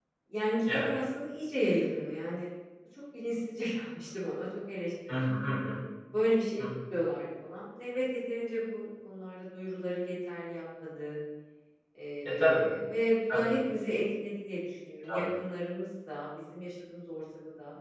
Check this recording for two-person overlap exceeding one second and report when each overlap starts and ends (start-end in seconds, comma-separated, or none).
none